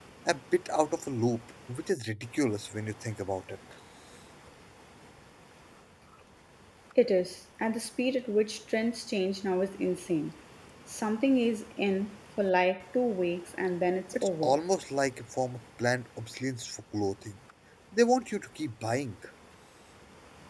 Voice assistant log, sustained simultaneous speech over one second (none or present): none